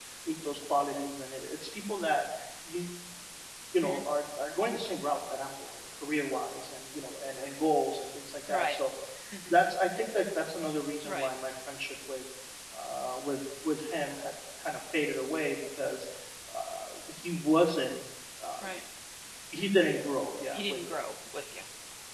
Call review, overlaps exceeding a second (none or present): none